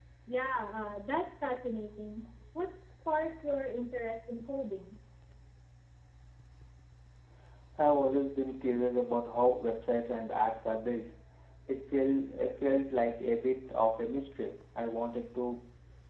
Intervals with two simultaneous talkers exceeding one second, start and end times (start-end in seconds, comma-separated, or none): none